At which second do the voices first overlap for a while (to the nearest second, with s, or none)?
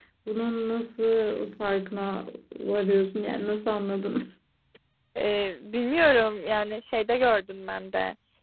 none